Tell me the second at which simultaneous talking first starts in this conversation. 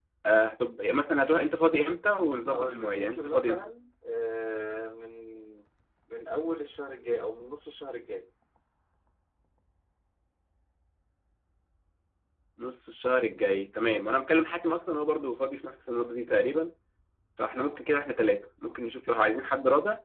2.5 s

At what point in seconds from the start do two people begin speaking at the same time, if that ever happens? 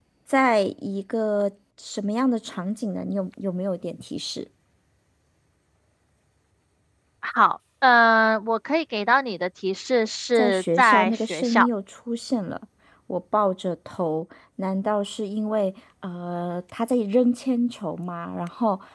10.4 s

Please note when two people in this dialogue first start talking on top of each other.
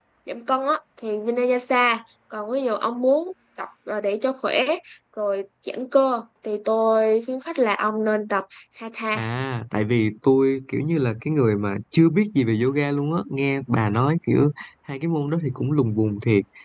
none

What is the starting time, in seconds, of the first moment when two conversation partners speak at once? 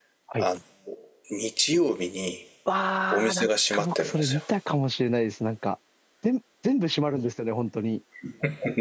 3.1 s

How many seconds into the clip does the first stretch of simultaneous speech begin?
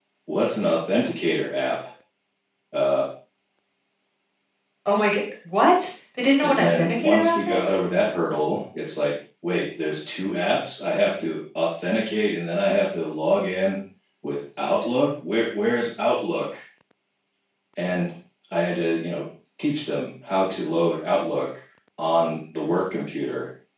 6.4 s

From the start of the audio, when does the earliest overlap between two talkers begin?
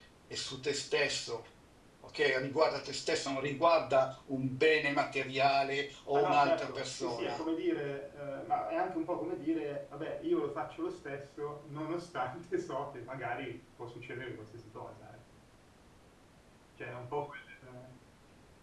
6.1 s

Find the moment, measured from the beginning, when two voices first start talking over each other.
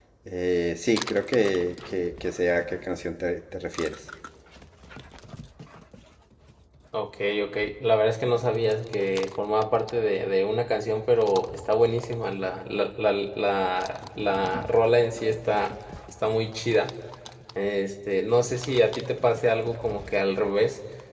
none

